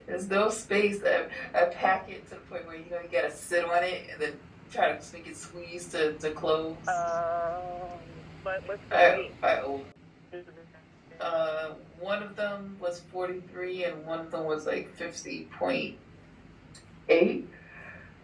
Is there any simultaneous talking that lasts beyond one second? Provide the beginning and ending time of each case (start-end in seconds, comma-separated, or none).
none